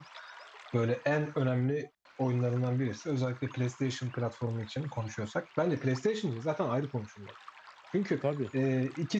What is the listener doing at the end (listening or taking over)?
listening